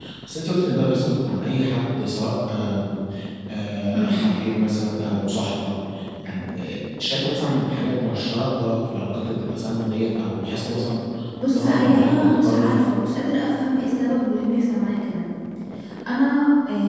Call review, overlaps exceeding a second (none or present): present